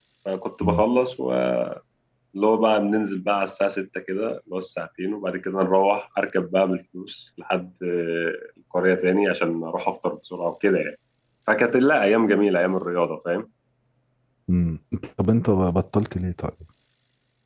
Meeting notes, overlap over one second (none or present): none